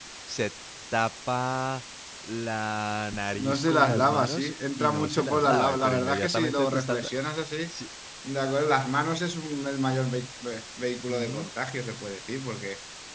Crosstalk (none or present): present